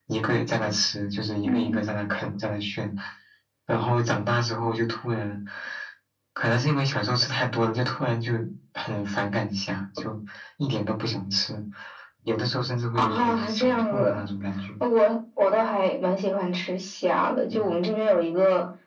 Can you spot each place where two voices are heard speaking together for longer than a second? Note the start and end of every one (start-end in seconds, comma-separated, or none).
12.9-14.2